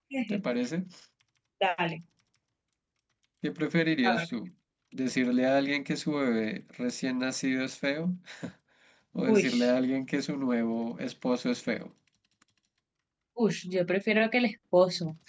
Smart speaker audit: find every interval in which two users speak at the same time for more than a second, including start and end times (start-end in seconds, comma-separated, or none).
none